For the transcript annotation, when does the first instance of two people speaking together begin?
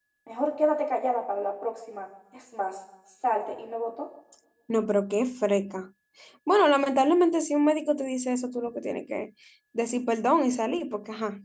none

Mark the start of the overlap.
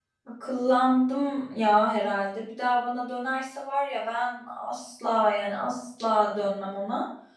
none

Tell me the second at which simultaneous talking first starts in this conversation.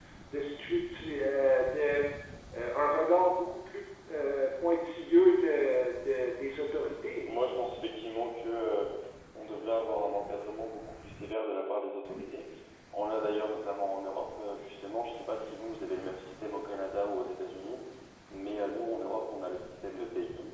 none

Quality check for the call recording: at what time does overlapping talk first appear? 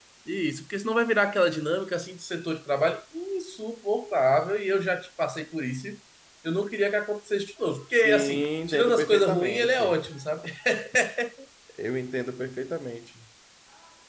7.9 s

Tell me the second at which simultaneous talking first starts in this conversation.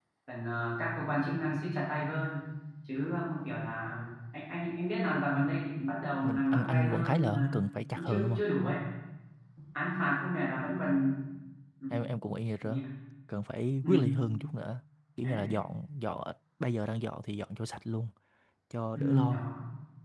6.2 s

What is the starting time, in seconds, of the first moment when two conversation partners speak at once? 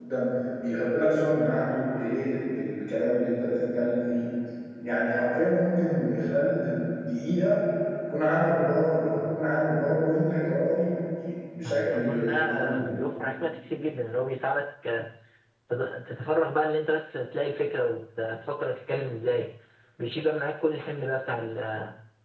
11.6 s

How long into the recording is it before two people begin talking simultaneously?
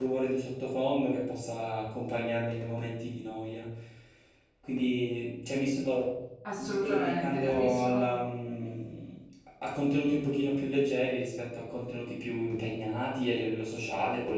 6.6 s

